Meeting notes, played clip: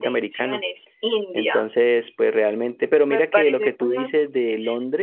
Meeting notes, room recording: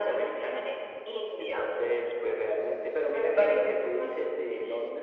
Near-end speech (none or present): none